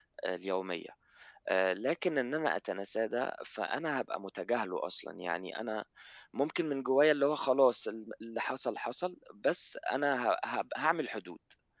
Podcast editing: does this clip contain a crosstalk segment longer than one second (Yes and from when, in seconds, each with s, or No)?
No